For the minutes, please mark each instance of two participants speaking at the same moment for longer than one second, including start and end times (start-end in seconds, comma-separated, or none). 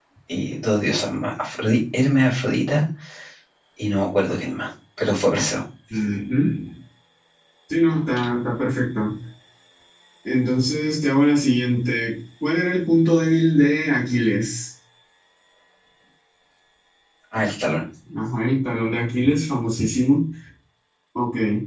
none